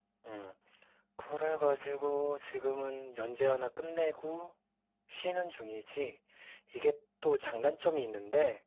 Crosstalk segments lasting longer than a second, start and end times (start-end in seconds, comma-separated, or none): none